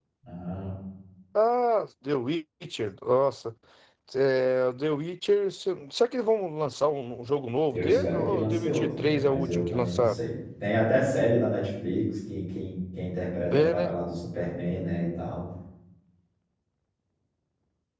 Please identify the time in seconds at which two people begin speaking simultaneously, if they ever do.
7.7 s

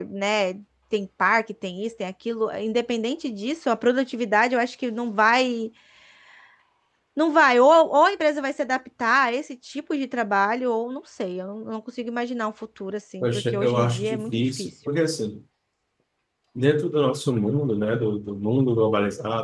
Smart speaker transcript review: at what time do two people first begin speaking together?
13.2 s

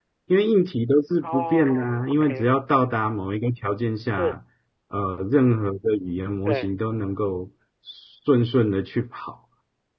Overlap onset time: 1.2 s

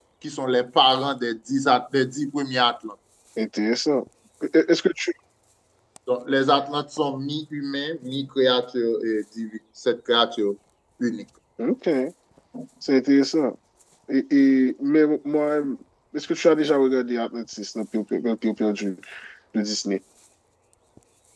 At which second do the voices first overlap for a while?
none

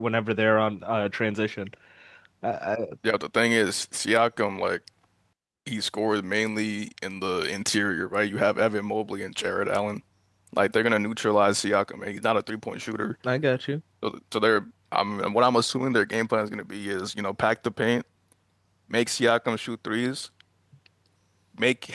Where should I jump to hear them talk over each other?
none

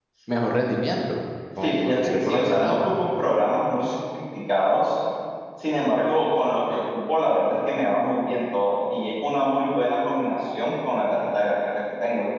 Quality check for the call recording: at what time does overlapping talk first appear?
1.6 s

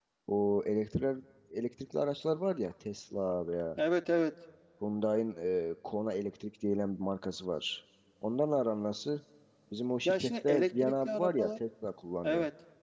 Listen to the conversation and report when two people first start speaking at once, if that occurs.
10.1 s

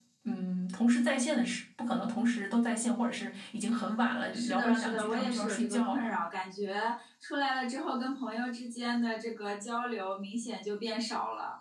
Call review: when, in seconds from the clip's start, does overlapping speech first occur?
4.3 s

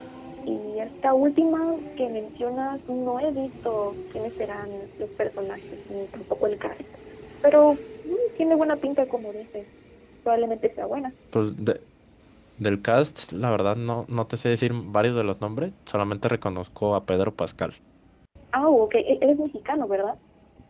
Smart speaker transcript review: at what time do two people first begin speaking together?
none

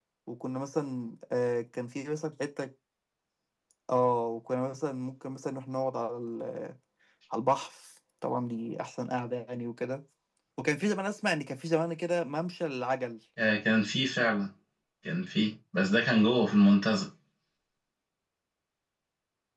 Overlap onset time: none

